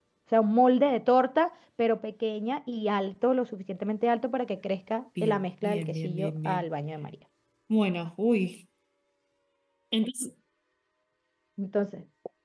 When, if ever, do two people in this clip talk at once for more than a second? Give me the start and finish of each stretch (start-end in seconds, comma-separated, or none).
5.2-6.7